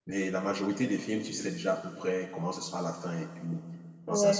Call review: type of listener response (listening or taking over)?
taking over